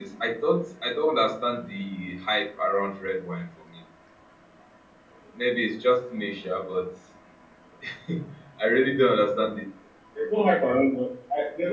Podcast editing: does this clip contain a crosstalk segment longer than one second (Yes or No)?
No